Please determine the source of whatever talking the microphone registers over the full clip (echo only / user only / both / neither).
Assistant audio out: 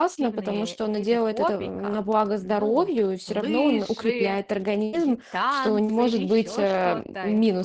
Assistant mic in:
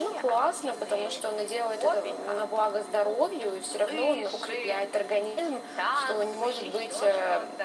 echo only